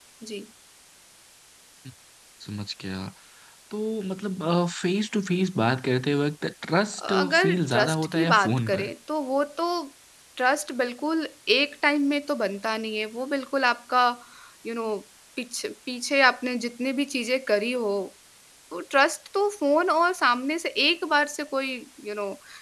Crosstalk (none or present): present